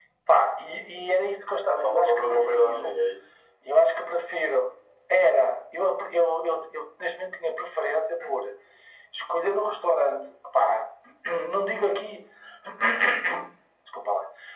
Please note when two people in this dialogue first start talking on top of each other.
1.8 s

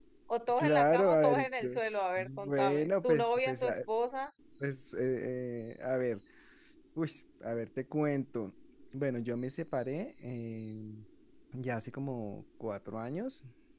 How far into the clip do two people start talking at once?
0.6 s

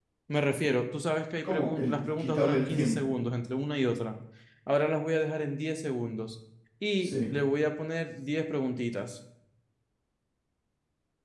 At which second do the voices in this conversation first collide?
1.4 s

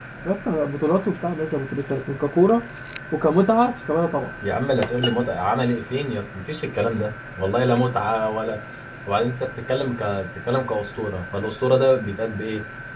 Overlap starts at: none

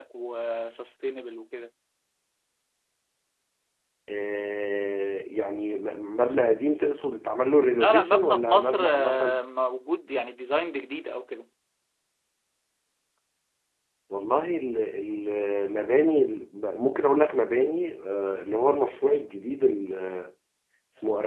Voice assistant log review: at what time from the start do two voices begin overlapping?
7.8 s

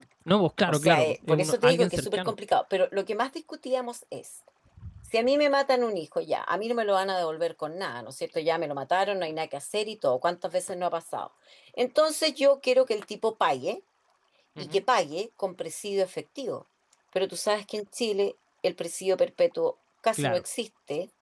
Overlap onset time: 0.7 s

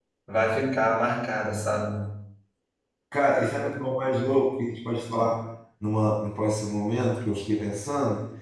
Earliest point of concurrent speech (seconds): none

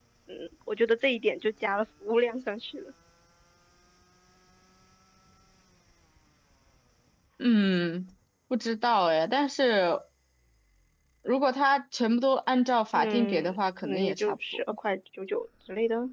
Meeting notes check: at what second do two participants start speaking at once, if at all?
12.9 s

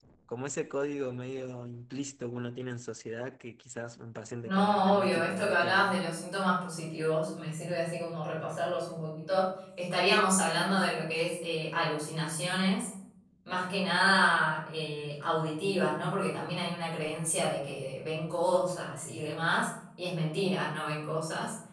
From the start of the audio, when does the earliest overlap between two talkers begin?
4.4 s

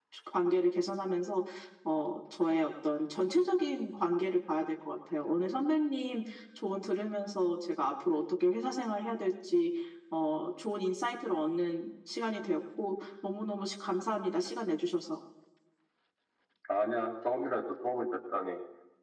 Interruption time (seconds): none

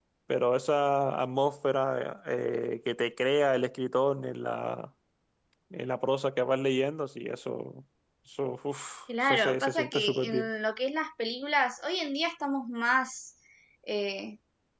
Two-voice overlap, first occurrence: 9.1 s

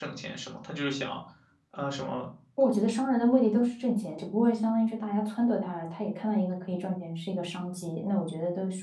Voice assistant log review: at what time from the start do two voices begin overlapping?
none

